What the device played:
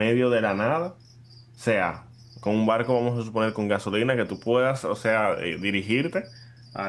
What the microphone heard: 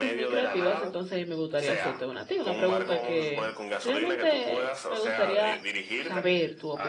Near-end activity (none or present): present